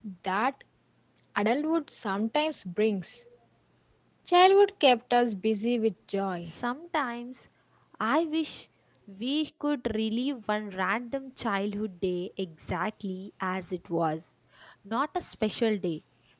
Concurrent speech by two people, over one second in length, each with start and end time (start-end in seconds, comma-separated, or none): none